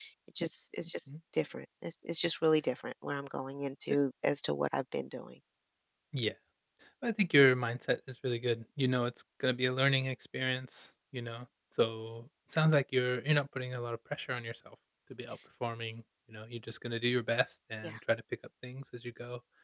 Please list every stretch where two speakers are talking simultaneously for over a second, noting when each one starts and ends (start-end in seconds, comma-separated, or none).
none